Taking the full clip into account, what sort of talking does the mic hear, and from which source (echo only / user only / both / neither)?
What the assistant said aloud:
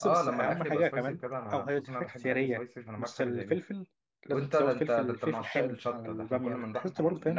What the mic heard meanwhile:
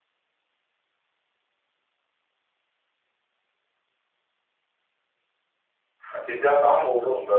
user only